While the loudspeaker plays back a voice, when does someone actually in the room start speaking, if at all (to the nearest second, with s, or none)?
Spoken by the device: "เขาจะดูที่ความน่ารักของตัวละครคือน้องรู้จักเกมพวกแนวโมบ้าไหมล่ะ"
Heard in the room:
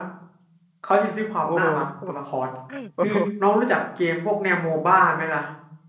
1 s